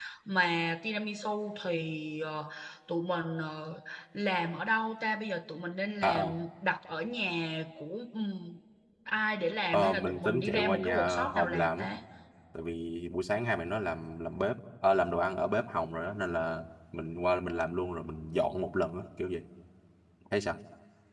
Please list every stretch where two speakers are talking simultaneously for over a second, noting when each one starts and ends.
9.7-11.8

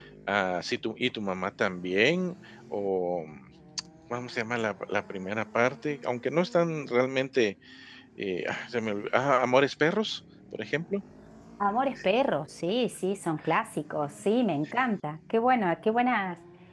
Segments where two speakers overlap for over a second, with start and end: none

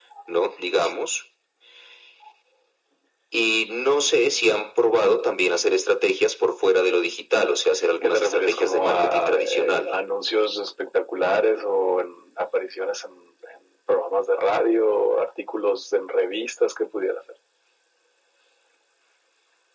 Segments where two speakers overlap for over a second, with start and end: 8.0-9.9

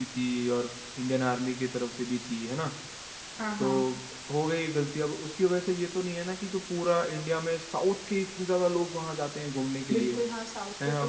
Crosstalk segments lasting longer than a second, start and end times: none

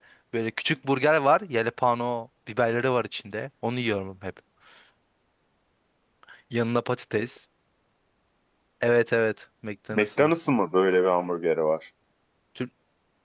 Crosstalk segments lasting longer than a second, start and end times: none

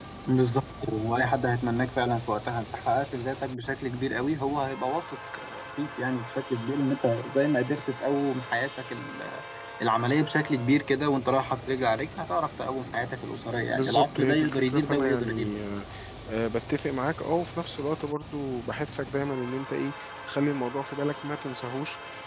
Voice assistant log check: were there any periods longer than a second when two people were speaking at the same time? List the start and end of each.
13.7-15.6

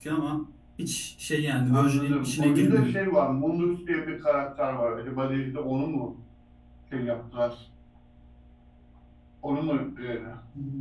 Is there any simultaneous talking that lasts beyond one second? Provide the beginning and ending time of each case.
1.7-2.9

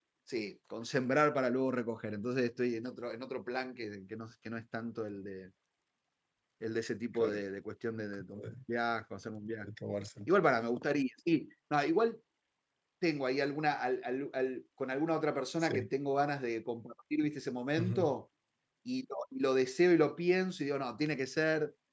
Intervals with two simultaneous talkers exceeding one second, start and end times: none

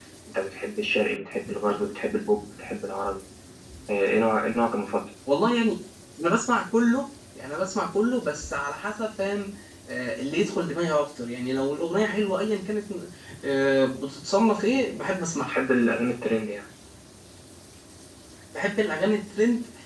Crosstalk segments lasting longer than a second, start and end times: none

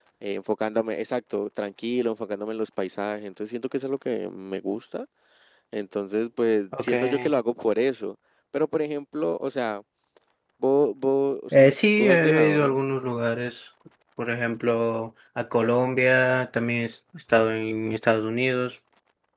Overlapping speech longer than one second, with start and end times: 11.5-12.8

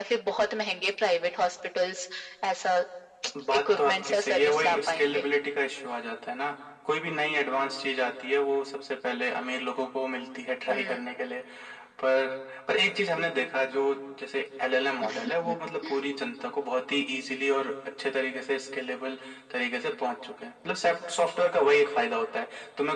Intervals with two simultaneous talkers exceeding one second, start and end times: 3.6-5.3

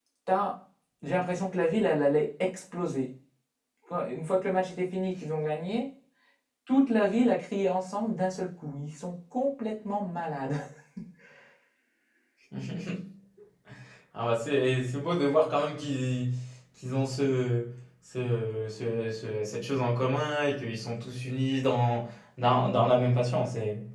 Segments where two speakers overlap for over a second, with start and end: none

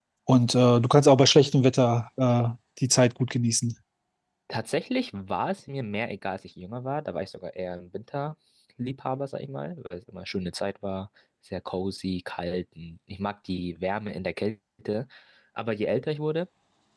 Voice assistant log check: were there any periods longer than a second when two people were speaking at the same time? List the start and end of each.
none

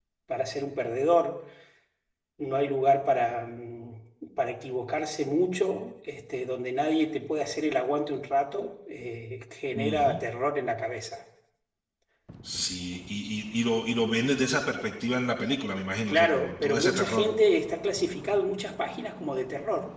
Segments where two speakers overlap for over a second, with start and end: 16.1-17.3

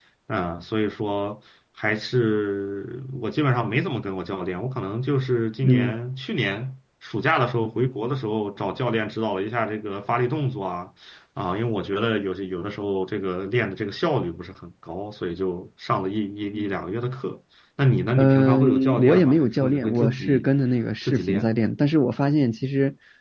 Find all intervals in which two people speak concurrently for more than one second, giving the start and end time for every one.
18.2-20.5

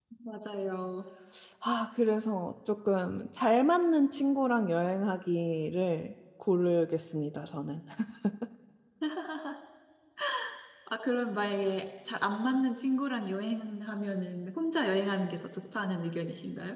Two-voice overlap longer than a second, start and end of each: none

